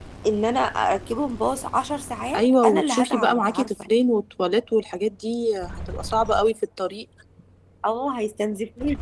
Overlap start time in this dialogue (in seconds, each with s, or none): 2.3 s